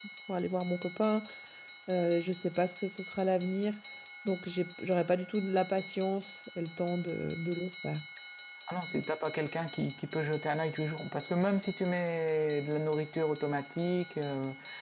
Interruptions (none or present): none